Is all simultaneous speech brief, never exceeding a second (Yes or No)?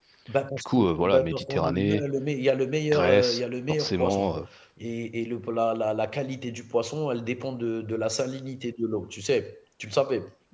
No